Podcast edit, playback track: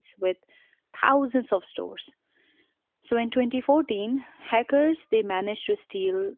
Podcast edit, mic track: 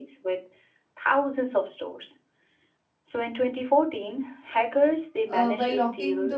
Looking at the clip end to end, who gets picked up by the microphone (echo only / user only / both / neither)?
both